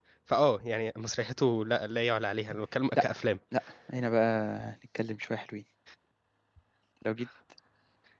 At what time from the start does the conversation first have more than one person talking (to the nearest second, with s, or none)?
none